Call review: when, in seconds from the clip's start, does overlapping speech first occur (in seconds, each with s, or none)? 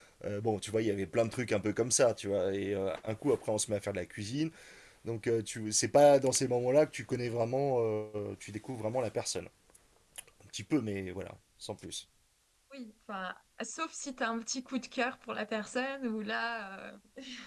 none